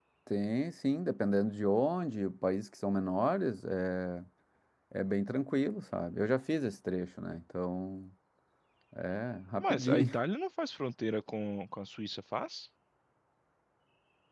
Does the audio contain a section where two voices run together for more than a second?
No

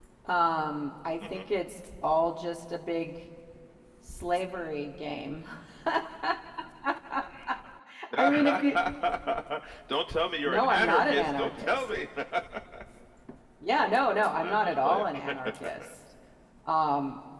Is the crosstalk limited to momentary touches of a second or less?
No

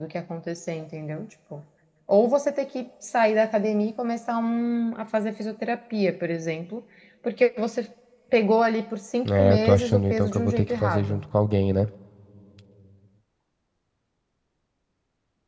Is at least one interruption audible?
Yes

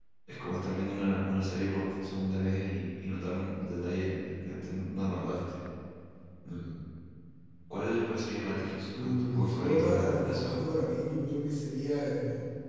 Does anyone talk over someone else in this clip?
Yes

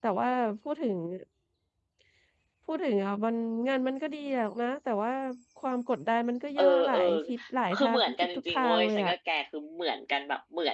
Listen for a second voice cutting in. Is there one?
Yes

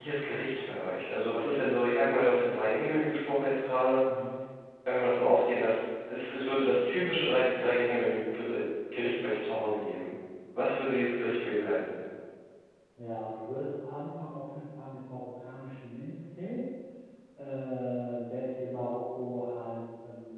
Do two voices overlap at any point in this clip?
No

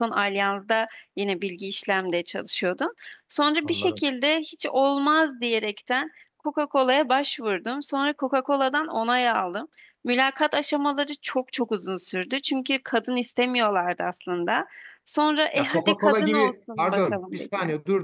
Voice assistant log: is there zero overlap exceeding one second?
No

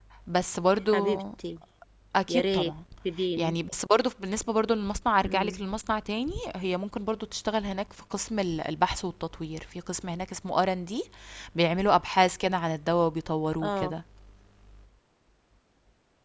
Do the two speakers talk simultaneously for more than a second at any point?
No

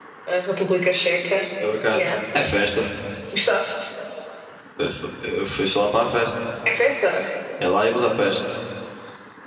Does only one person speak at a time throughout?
Yes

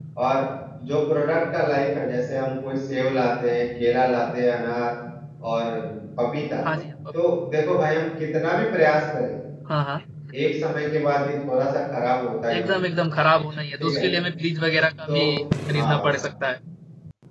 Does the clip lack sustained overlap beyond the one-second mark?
Yes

